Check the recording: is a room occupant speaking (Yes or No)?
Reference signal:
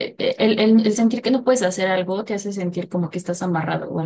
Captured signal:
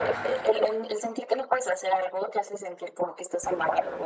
No